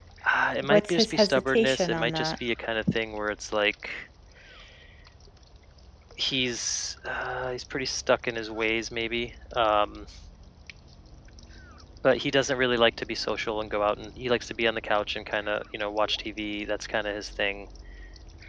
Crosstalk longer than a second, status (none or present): present